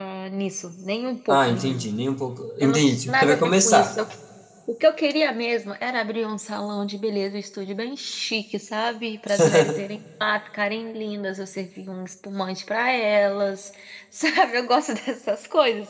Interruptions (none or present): present